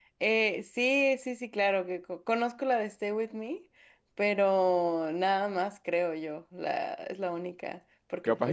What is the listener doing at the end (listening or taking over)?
taking over